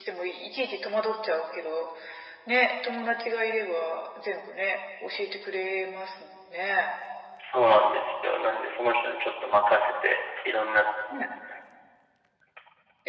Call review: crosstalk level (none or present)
none